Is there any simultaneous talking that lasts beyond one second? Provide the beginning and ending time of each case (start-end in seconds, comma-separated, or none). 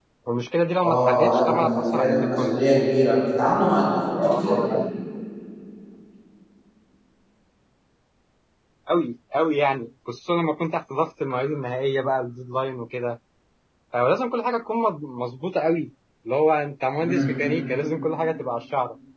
0.8-2.6